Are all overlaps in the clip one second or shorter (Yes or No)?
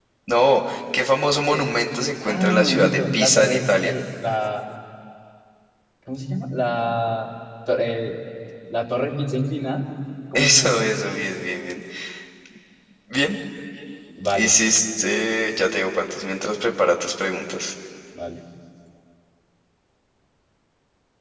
No